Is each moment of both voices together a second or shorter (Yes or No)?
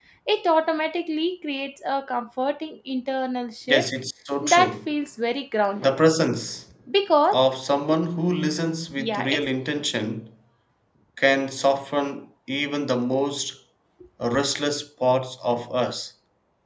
Yes